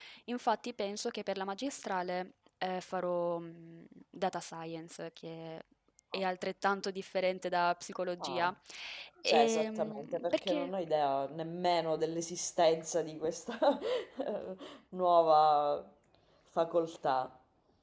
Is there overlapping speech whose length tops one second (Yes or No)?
Yes